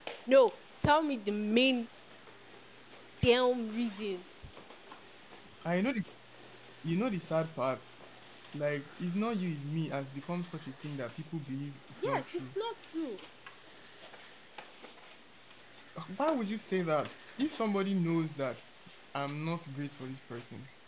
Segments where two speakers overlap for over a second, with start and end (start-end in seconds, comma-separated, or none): none